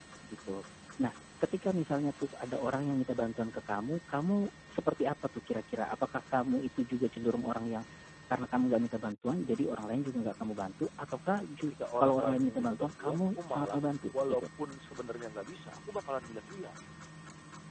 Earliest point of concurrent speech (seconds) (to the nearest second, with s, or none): 12 s